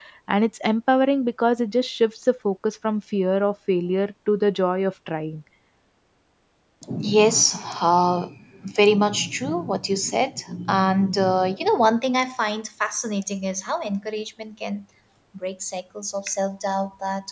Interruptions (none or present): none